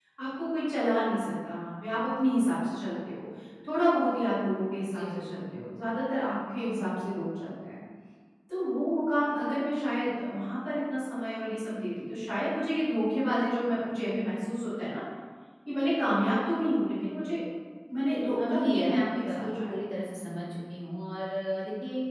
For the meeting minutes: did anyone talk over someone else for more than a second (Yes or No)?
Yes